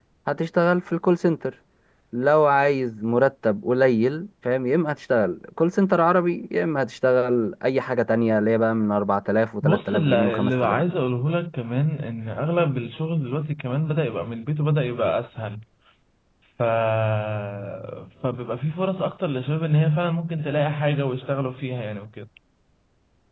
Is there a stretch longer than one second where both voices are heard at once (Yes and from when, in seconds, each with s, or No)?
Yes, from 9.6 s